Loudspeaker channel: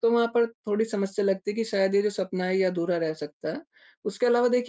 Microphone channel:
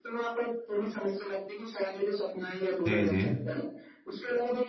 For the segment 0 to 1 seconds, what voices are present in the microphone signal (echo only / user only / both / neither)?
echo only